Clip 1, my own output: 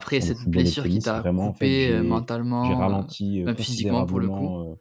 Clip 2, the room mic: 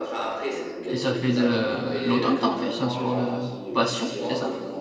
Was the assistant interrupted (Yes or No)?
Yes